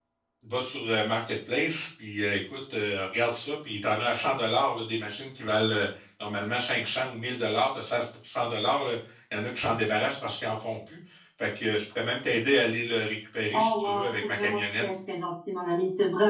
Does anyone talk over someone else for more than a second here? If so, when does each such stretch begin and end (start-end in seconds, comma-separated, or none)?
13.5-14.8